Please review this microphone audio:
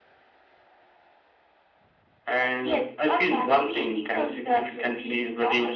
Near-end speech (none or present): none